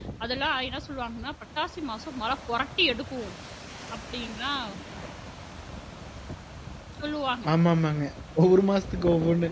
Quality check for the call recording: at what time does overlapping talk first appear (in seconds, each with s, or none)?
none